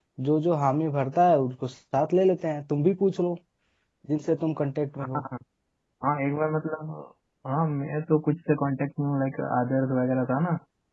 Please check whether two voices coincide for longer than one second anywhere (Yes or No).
No